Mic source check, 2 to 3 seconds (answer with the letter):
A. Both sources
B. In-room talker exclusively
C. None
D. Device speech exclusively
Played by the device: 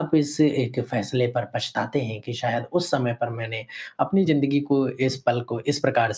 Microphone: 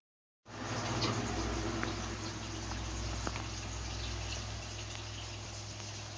C